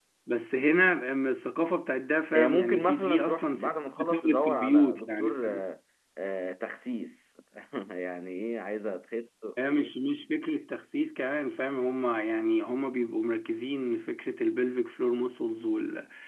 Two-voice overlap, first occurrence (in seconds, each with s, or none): 2.3 s